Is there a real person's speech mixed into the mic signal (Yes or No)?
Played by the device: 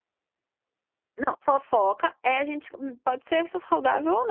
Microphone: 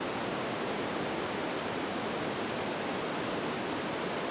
No